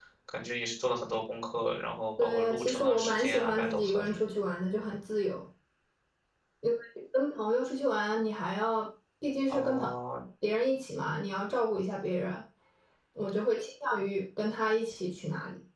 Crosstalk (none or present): present